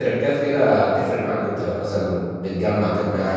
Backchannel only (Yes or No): No